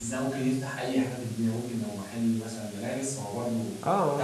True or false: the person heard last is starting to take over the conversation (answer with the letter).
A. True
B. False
A